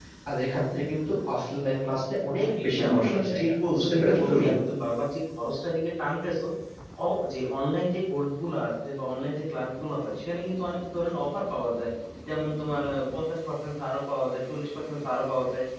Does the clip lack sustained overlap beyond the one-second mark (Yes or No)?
No